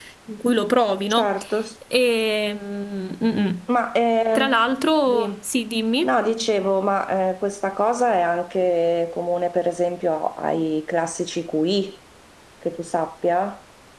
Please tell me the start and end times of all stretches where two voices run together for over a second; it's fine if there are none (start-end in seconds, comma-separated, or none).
none